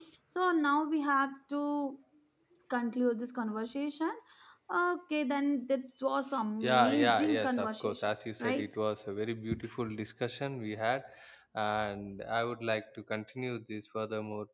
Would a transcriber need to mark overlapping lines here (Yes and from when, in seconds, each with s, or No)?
Yes, from 6.6 s